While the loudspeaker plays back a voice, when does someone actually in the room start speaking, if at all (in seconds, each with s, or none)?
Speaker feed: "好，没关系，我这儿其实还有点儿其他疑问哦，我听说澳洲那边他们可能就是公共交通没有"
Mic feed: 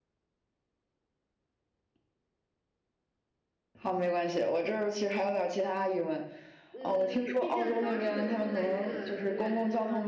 6.7 s